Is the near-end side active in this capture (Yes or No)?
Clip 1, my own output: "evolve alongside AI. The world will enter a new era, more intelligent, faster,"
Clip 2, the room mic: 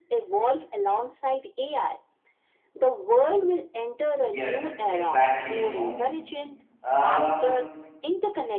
Yes